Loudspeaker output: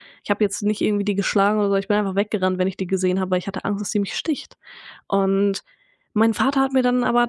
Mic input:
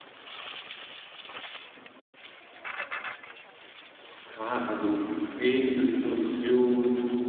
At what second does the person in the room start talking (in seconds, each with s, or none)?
4.2 s